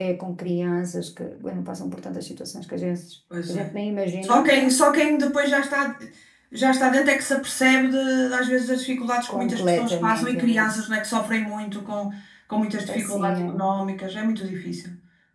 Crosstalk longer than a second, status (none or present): present